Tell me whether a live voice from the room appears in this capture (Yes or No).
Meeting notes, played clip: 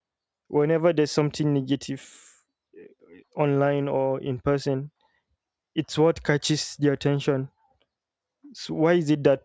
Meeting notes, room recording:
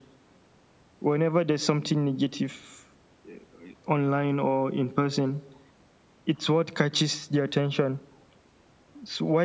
No